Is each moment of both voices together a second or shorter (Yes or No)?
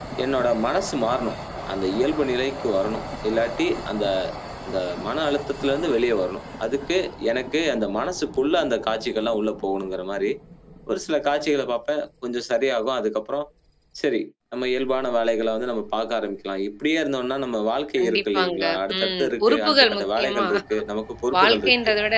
No